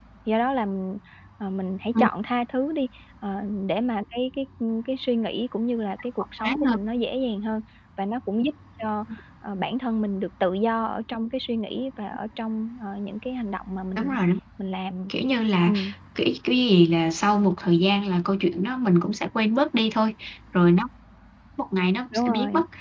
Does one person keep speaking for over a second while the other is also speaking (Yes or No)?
No